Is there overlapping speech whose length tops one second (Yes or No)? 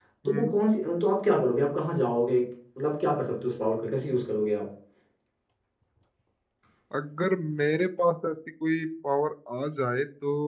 No